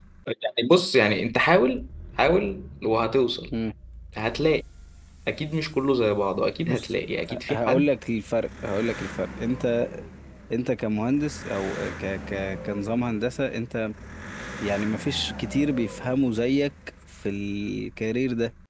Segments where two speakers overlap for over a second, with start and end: none

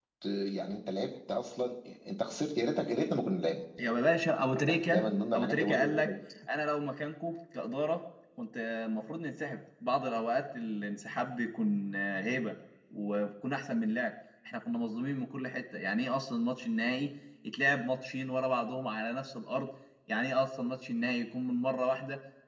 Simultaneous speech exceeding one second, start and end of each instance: 4.7-6.1

